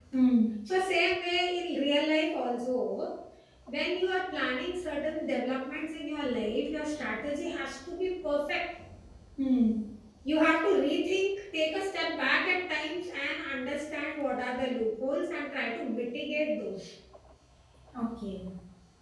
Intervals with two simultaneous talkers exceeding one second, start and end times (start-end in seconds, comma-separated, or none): none